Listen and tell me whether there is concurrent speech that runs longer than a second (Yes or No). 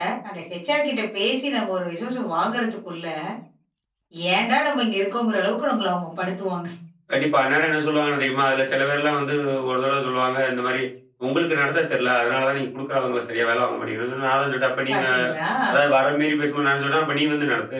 No